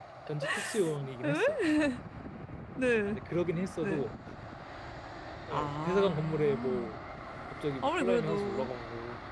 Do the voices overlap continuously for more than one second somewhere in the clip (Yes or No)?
Yes